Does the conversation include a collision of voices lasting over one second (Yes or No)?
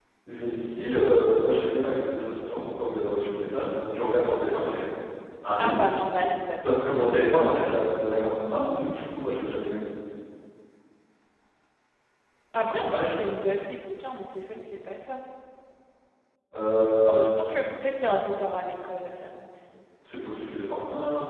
No